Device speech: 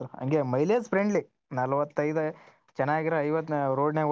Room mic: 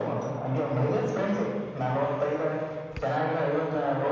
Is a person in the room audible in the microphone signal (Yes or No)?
No